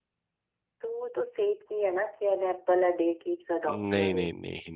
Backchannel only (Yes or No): No